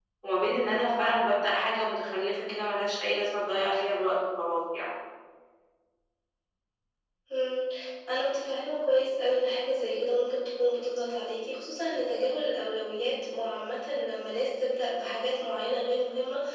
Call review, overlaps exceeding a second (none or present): none